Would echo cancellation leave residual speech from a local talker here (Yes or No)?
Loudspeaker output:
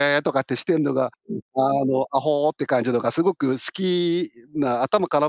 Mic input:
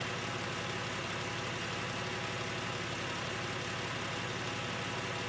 No